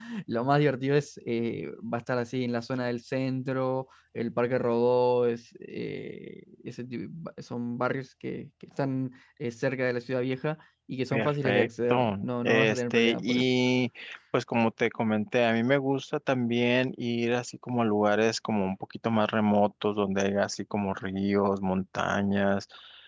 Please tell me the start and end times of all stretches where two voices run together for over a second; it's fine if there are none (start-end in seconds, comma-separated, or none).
11.1-13.4